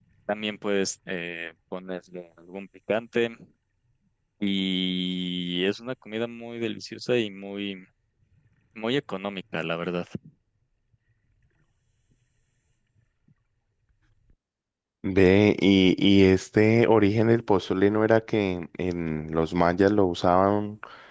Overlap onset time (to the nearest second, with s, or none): none